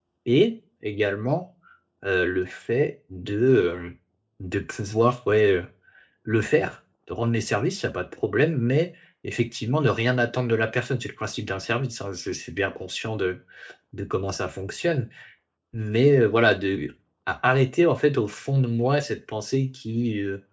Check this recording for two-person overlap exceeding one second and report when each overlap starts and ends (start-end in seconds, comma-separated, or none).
none